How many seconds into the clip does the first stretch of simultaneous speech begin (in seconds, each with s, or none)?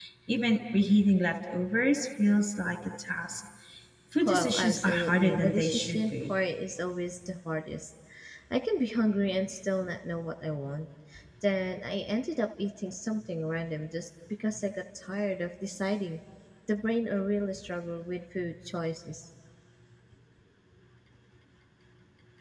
4.2 s